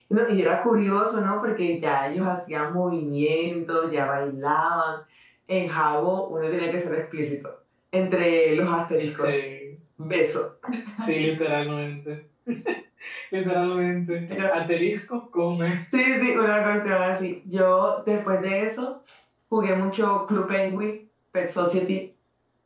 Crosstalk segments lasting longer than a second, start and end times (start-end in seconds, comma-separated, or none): none